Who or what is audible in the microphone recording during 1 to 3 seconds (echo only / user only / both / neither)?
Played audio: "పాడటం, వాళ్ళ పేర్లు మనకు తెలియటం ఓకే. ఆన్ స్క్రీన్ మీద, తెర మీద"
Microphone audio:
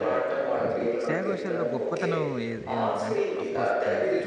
both